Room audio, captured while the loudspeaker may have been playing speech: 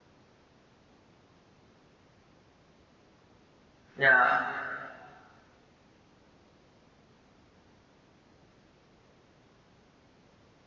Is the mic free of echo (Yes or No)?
Yes